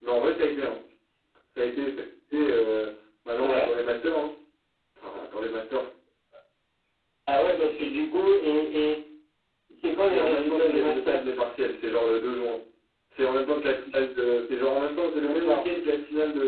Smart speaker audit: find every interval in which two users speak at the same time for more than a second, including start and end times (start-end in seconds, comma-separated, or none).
10.0-11.2